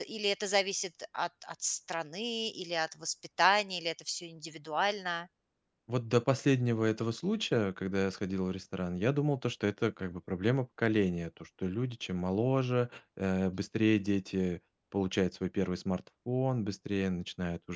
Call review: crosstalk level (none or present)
none